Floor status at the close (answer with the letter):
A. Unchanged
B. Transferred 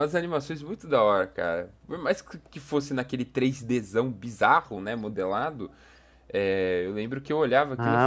B